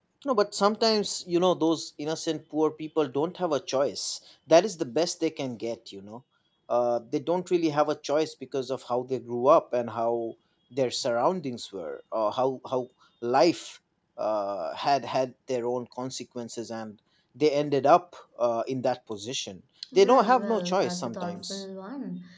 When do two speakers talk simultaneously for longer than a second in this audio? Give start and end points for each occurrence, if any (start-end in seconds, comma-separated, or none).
19.9-21.6